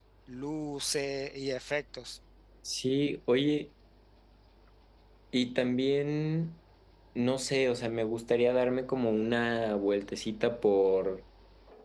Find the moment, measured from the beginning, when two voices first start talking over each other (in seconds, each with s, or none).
none